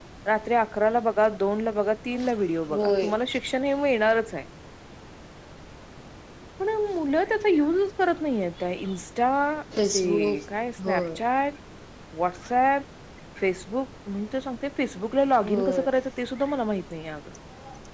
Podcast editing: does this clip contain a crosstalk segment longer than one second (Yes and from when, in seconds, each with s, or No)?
No